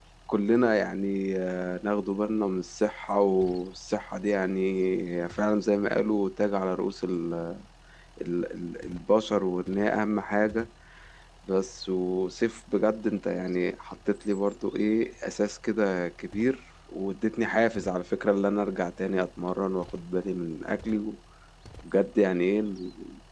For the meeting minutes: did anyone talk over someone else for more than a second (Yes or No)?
No